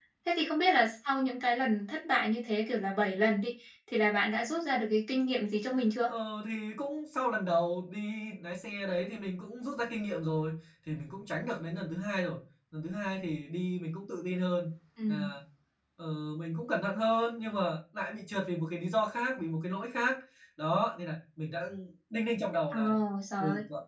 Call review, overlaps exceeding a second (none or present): none